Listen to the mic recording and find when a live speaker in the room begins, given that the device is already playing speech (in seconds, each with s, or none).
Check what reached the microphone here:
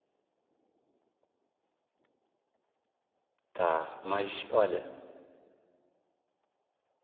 3.5 s